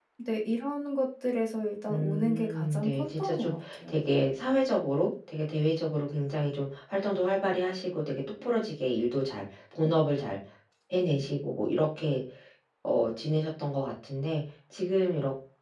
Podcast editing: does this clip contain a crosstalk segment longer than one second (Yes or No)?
Yes